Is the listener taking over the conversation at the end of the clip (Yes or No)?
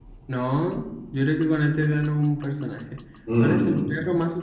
No